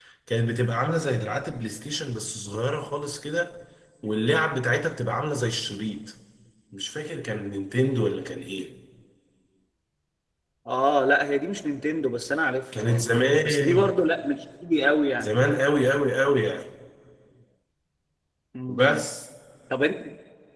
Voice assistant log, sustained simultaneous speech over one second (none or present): none